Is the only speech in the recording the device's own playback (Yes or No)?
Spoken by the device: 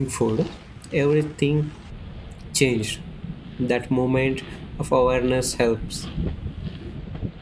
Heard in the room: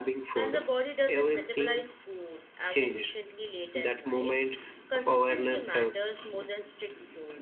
No